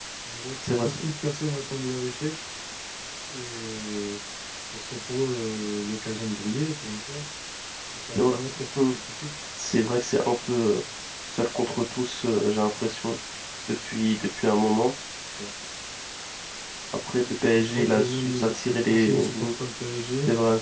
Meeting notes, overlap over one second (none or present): present